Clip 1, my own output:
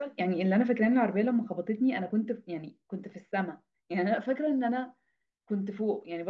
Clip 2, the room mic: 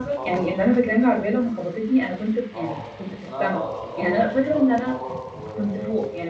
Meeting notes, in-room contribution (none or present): present